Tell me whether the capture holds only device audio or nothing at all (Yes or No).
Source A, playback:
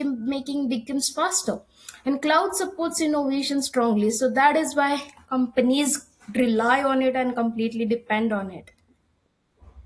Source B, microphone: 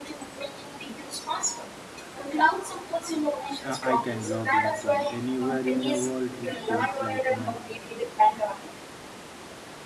No